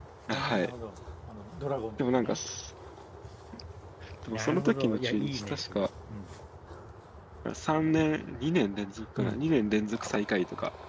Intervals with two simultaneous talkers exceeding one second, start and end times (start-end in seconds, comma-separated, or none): 4.3-5.9